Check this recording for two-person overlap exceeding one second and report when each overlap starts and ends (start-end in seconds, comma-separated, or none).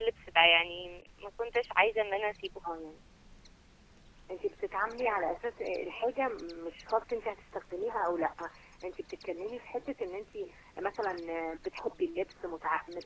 none